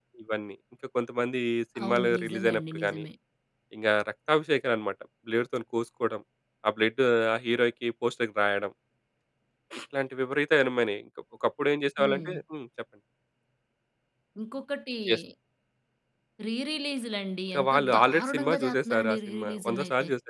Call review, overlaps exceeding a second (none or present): present